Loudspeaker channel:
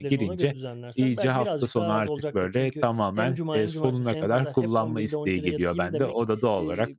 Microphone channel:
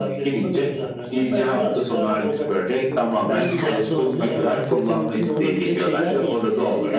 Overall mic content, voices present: both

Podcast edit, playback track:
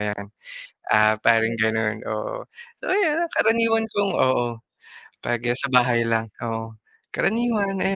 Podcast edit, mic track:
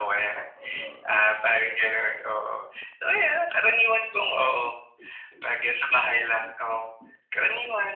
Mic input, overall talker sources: echo only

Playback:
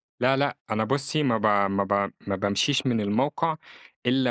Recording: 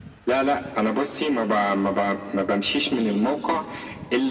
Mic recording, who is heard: echo only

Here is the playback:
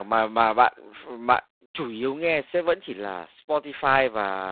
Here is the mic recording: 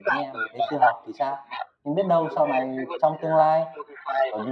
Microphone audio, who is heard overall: both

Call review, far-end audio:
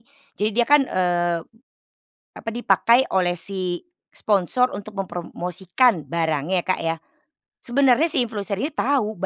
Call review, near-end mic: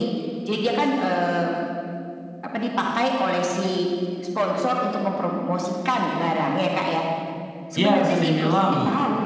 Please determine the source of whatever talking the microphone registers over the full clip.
both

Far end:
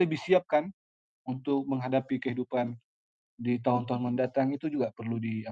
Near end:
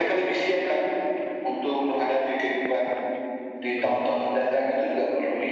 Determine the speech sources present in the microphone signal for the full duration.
both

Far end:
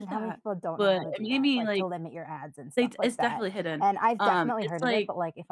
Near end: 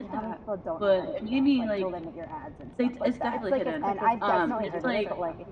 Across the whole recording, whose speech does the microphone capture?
both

